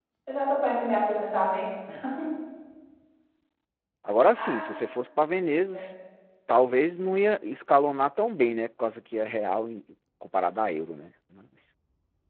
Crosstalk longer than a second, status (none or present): none